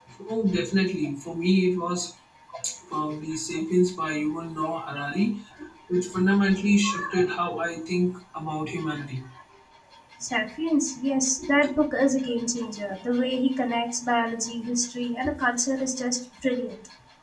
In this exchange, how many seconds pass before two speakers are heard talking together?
none

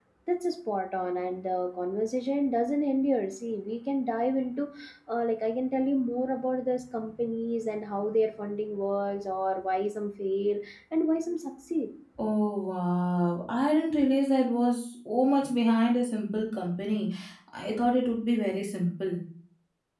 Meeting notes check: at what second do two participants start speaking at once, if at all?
none

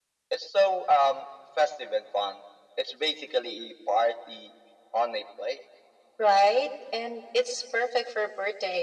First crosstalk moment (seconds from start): none

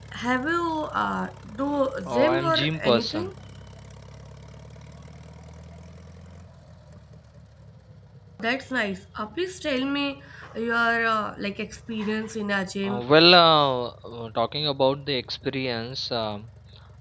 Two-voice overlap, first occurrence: 2 s

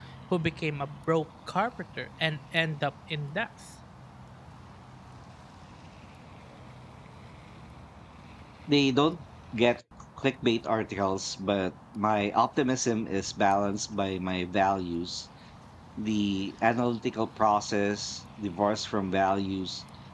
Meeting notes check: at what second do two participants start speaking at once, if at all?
none

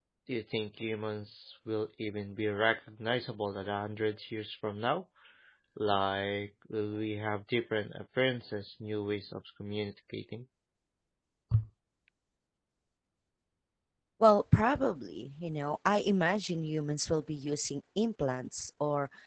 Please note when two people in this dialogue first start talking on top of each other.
none

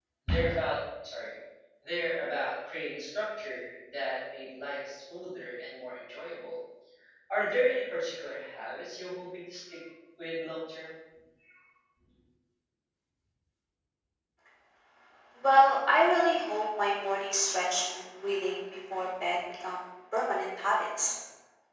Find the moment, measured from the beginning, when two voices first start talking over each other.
none

